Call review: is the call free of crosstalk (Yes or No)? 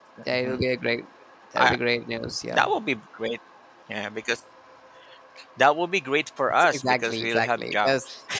No